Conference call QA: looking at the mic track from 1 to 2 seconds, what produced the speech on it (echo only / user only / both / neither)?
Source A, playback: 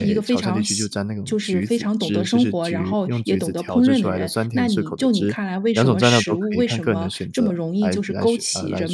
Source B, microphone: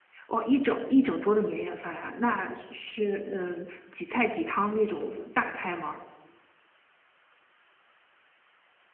user only